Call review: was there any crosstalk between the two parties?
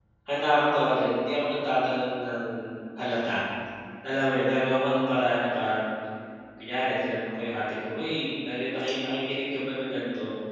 No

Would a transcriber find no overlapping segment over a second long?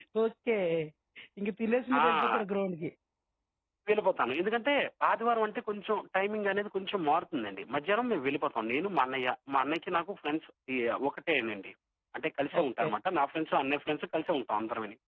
Yes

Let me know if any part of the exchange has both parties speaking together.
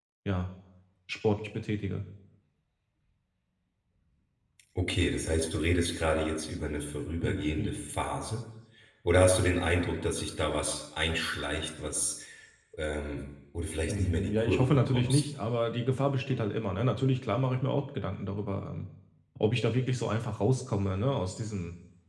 Yes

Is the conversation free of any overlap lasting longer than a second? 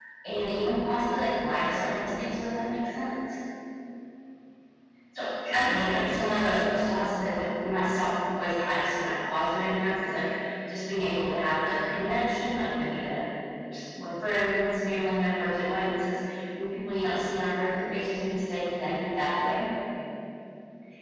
No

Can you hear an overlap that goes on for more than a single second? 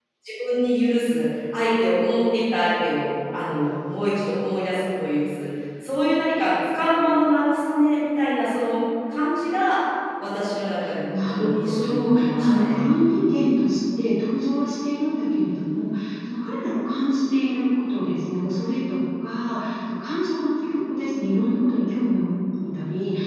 Yes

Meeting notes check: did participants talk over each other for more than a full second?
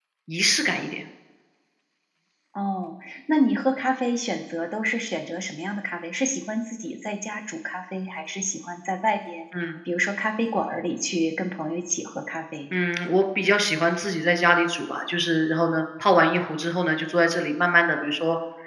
No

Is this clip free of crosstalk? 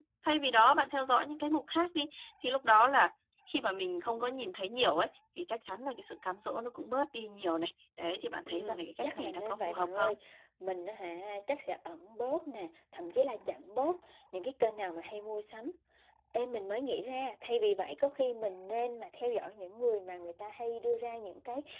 No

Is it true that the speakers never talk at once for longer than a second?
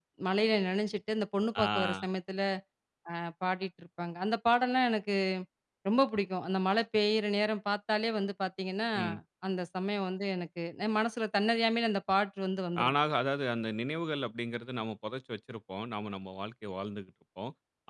Yes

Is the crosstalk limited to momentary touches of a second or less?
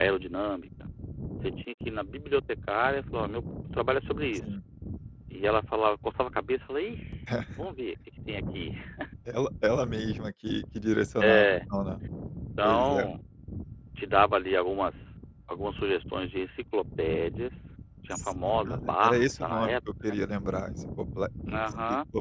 No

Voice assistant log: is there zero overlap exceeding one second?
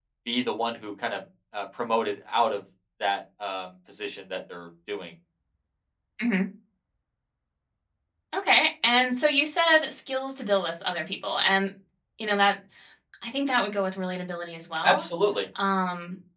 Yes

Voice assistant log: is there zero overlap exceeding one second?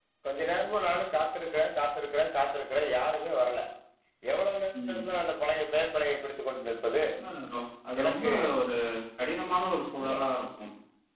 Yes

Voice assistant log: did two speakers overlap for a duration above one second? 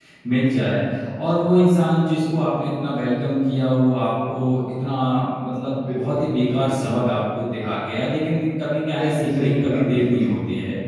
Yes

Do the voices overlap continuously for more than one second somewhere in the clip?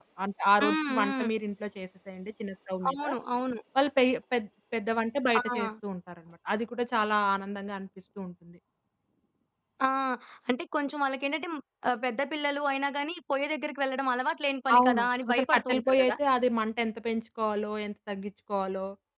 Yes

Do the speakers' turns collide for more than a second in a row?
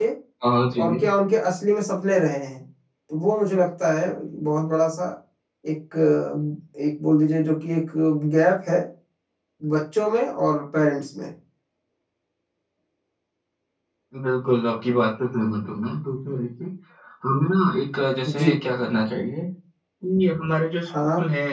No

